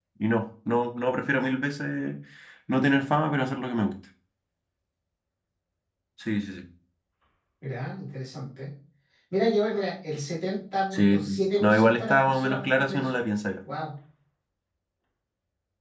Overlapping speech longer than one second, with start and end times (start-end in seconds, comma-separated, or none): 11.6-13.1